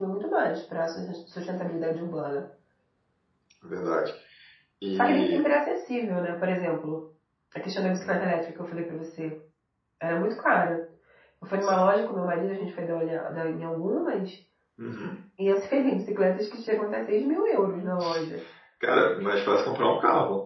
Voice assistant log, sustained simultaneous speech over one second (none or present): none